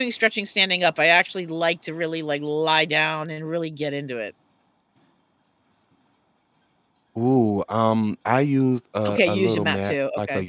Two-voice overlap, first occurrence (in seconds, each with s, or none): 9.1 s